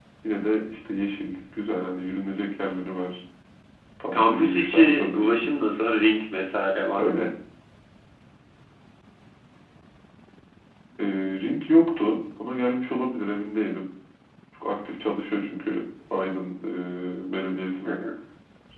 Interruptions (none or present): present